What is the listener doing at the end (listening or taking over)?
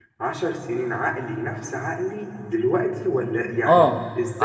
taking over